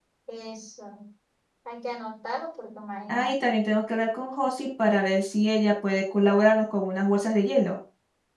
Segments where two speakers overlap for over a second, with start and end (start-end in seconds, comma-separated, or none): none